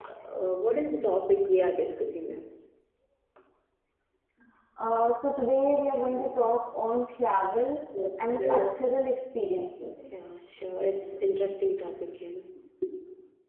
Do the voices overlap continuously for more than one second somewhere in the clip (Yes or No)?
No